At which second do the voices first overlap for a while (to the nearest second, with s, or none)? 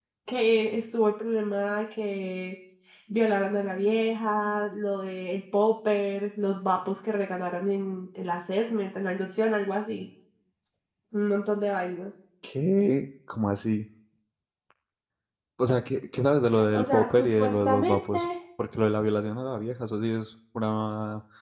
17 s